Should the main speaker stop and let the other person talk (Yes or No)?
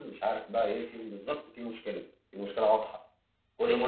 Yes